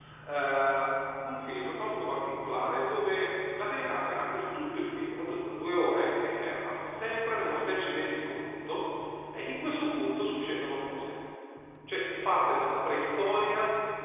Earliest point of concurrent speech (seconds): none

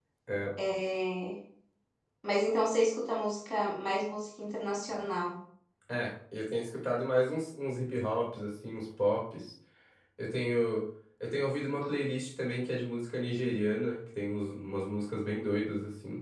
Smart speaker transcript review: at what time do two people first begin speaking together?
none

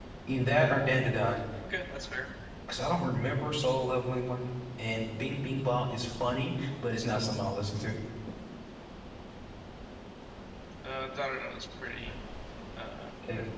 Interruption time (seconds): none

